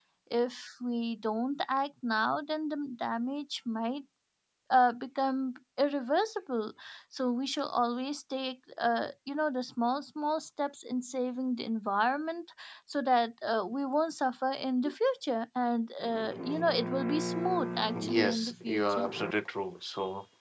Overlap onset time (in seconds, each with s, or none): 17.9 s